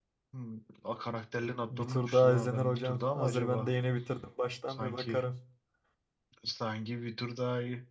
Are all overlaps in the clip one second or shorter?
No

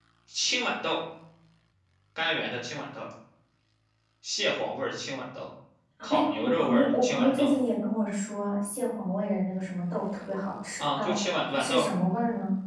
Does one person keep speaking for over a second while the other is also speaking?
Yes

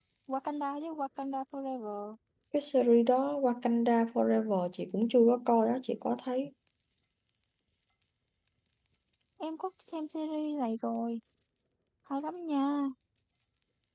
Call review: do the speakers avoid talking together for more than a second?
Yes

